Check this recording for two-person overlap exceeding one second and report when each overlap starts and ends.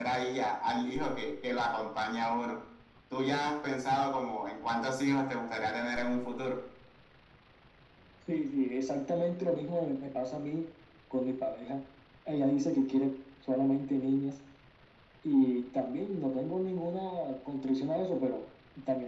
none

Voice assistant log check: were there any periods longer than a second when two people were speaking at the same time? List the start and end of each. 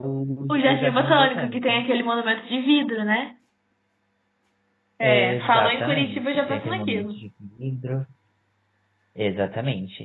0.6-1.8, 5.0-7.2

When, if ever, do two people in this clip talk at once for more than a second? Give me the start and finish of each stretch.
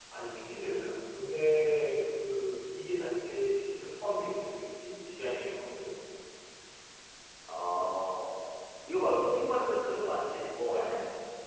none

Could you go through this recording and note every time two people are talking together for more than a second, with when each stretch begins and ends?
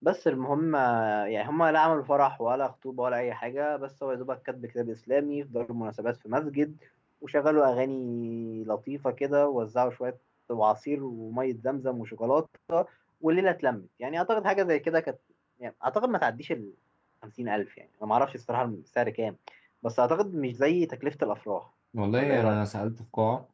none

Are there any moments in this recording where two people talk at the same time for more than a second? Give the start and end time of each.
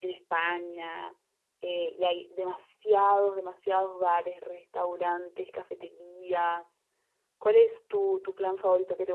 none

